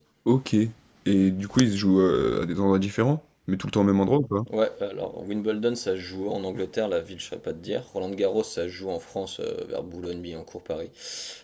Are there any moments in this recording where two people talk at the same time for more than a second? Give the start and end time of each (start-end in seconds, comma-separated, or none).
none